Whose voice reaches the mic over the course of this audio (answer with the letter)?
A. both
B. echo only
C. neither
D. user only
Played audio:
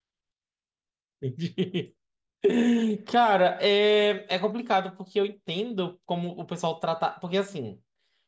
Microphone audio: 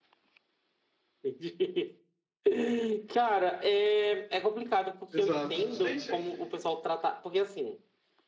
A